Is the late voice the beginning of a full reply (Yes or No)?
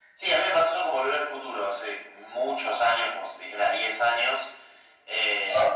No